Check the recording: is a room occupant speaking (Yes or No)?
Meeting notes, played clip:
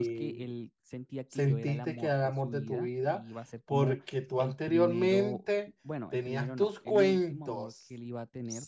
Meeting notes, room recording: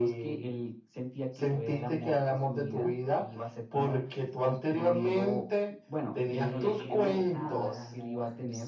Yes